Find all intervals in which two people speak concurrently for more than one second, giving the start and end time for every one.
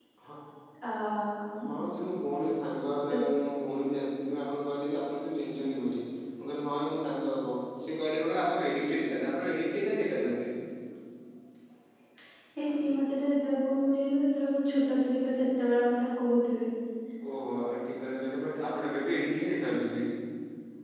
none

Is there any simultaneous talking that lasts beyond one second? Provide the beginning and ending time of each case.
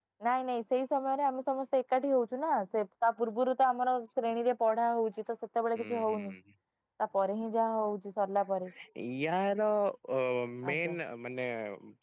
none

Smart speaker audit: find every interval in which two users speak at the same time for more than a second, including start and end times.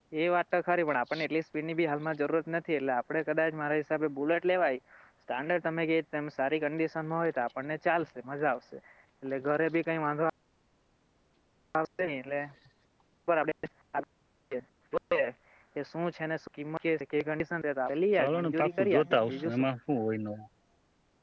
18.2-19.5

